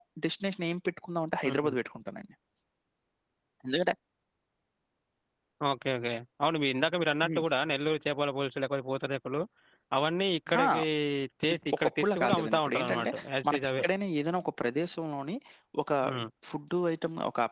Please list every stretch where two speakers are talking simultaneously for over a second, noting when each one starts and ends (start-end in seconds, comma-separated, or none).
11.7-13.1